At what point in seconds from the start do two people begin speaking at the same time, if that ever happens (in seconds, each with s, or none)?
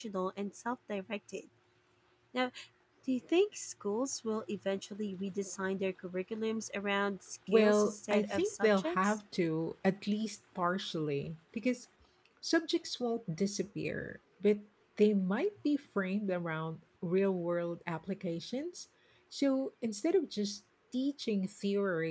7.5 s